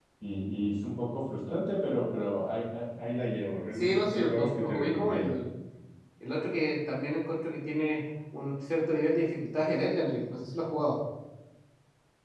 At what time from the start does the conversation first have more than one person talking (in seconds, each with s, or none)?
3.7 s